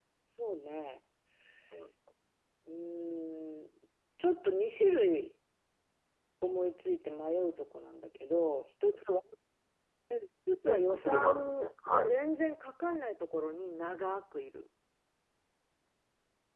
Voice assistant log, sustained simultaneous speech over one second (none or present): present